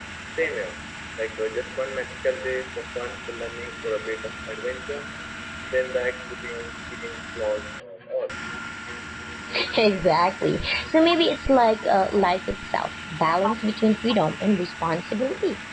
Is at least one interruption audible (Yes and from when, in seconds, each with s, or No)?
No